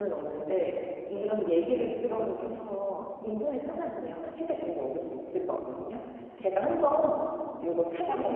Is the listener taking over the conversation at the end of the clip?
No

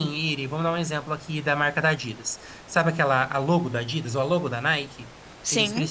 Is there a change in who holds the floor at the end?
No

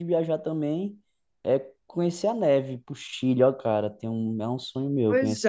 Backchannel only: No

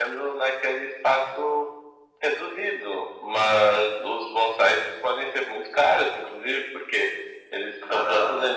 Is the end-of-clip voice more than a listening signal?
No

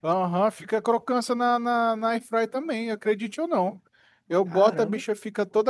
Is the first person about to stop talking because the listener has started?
No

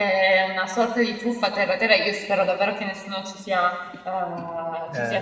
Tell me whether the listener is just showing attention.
Yes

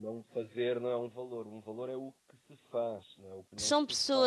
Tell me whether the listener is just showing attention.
No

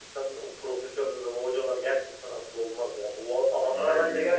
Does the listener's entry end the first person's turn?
No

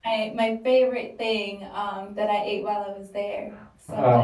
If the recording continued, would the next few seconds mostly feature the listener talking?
Yes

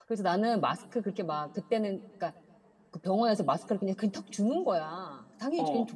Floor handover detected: No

